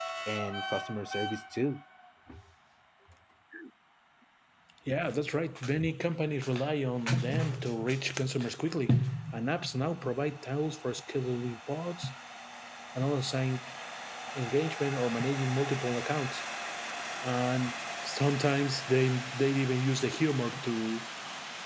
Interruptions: none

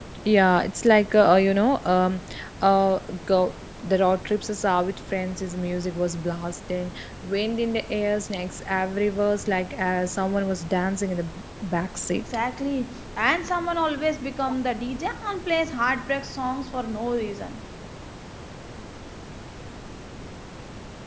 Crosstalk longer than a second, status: none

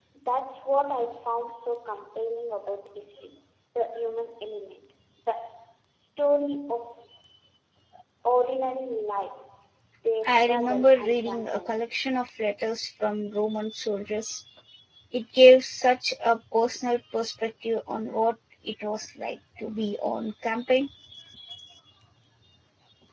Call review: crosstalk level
present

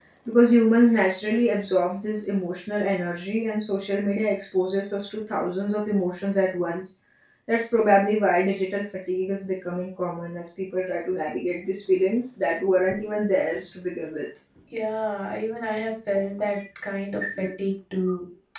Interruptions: none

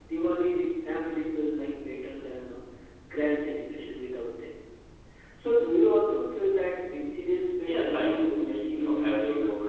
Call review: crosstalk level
present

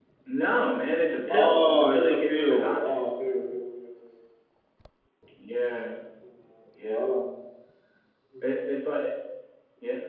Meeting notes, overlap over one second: present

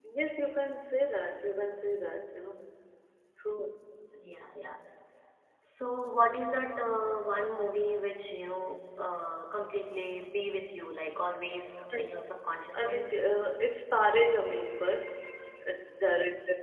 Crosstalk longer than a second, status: none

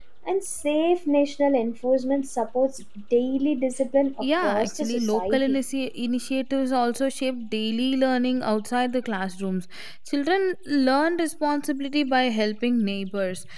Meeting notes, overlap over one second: present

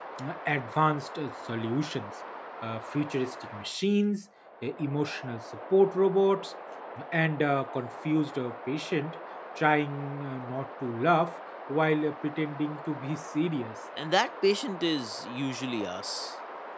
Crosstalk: none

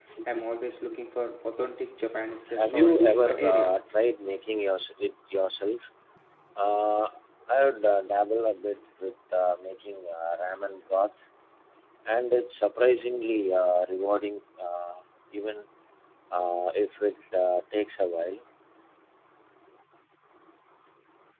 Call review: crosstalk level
present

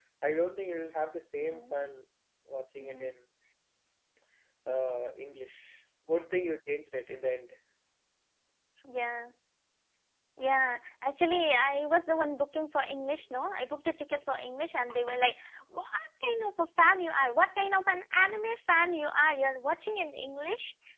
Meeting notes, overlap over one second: none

